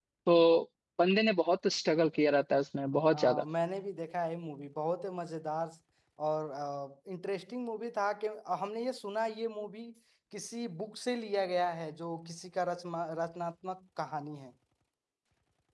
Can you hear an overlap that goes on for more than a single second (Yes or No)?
No